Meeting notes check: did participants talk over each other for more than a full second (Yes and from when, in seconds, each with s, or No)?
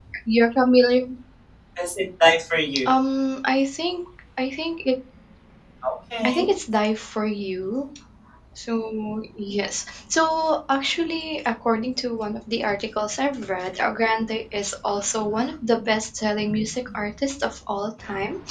No